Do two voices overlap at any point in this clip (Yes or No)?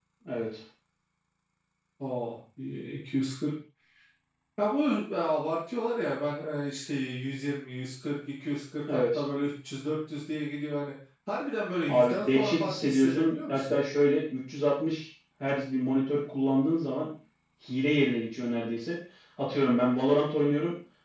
Yes